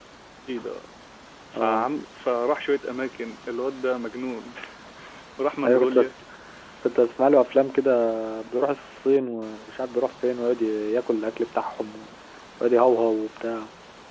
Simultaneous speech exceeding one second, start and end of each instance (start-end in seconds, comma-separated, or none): none